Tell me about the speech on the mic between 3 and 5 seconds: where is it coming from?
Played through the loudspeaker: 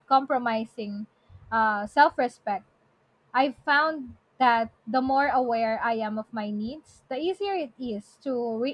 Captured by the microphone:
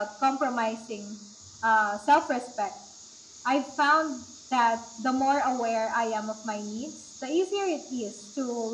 echo only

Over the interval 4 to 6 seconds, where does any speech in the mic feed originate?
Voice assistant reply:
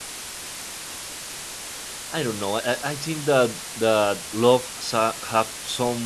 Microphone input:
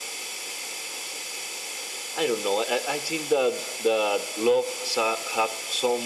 echo only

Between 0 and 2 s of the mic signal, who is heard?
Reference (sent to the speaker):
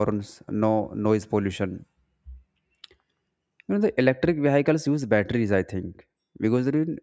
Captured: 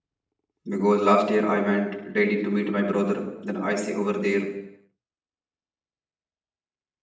user only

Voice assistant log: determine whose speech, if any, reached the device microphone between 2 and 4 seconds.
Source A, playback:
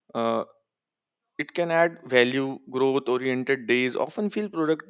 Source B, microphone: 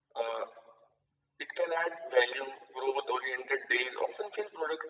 echo only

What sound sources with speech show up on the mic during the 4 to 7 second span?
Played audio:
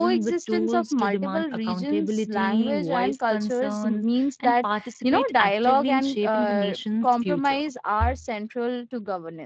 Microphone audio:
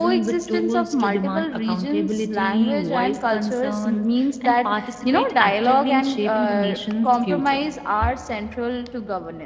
echo only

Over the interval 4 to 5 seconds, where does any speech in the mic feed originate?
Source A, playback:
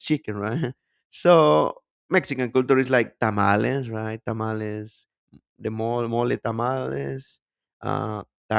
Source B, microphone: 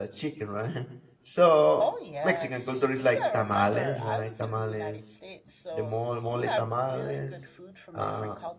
both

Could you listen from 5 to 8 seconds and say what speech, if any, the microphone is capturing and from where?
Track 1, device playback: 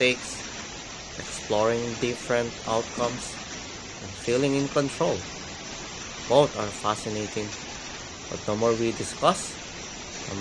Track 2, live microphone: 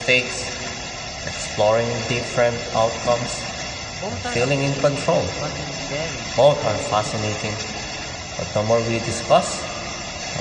both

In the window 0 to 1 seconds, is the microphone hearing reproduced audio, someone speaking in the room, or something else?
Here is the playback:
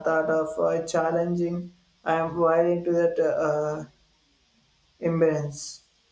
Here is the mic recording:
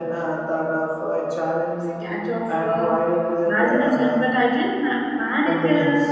echo only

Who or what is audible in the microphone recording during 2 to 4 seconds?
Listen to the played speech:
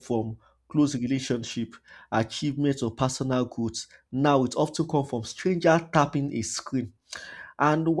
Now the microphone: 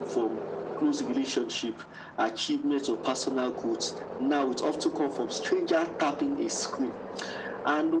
echo only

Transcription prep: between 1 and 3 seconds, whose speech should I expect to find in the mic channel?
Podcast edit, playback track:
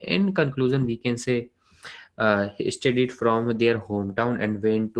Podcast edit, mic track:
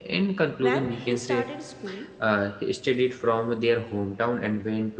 both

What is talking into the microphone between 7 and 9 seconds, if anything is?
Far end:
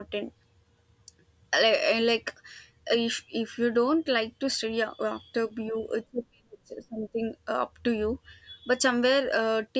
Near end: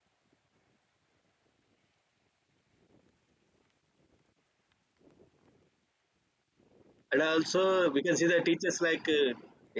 user only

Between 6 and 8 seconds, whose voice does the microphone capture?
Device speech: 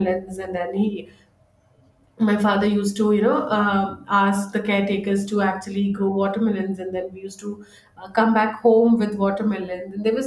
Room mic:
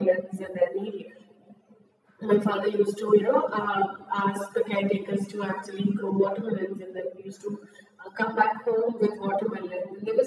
echo only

